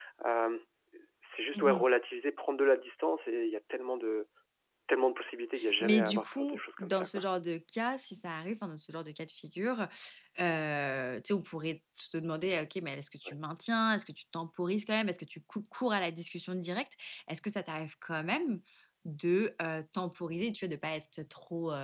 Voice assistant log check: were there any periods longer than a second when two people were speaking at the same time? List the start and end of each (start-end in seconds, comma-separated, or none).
5.8-7.1